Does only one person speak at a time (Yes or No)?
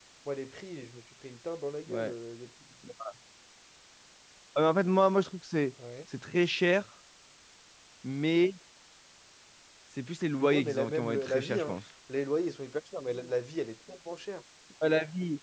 No